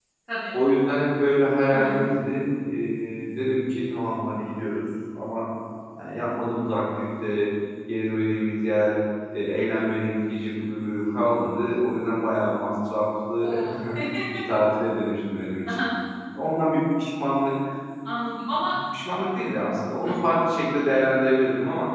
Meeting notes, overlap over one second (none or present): none